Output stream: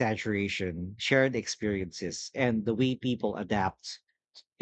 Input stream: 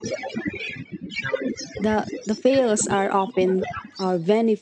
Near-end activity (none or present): present